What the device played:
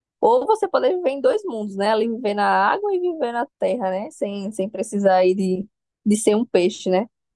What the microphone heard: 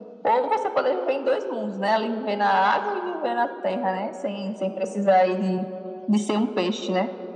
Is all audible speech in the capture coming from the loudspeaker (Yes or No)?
Yes